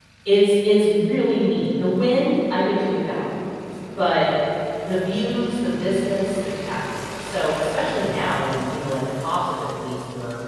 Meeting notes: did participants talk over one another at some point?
No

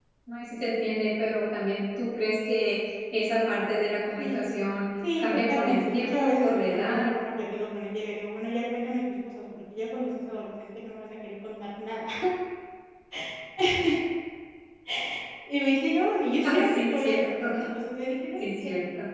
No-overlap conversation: No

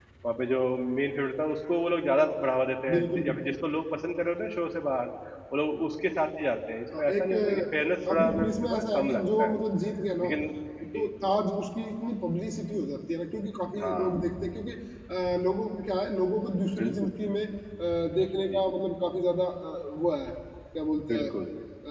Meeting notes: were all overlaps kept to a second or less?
No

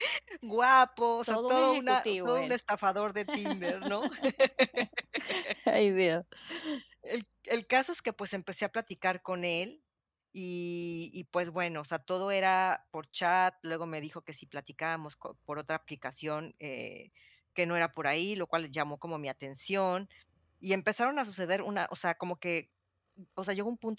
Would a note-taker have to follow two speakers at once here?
Yes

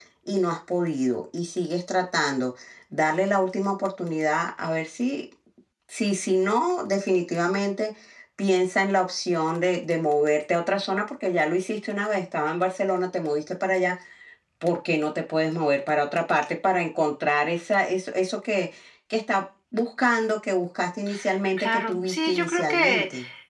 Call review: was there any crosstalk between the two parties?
Yes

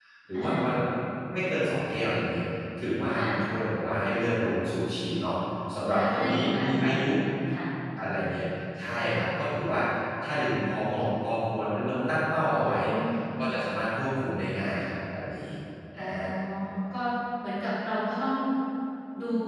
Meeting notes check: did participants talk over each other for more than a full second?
Yes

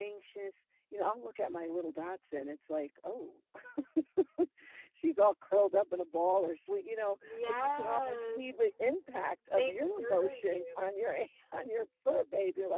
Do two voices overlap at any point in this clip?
Yes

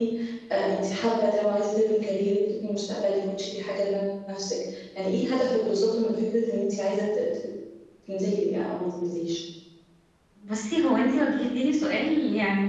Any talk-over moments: No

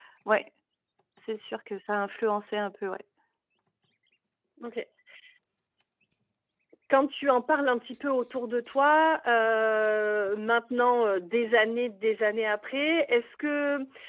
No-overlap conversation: Yes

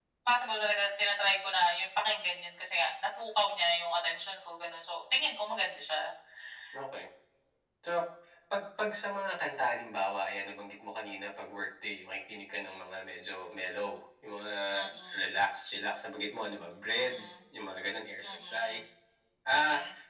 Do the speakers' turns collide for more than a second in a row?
No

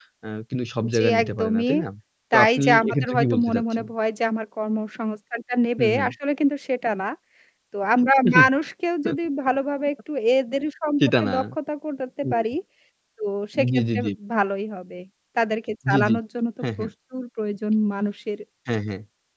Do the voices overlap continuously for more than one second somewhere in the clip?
Yes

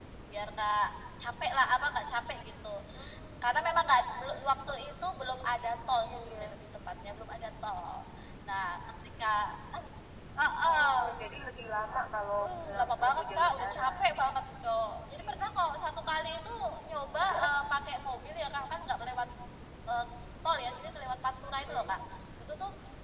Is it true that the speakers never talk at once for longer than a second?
No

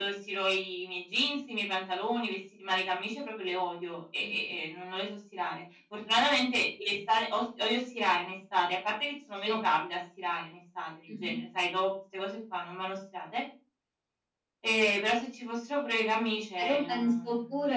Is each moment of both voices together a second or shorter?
No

